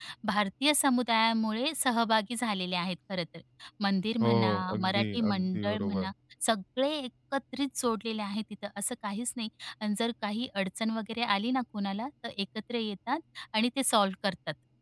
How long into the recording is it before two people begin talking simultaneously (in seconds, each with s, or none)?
4.2 s